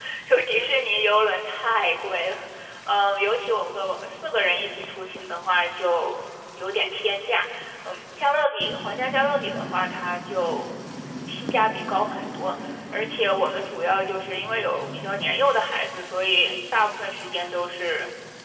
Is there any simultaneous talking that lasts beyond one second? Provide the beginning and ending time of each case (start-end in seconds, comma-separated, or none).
none